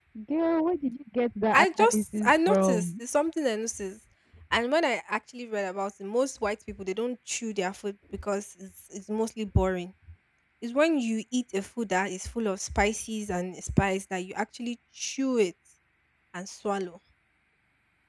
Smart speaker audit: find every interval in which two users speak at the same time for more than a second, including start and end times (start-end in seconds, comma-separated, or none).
1.5-2.9